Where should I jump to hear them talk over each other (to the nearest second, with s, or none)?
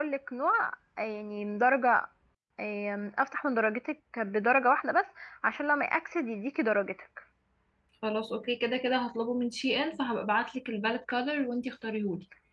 none